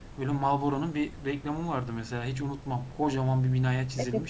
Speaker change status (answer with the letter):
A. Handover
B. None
A